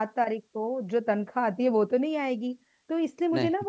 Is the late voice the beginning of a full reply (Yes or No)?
No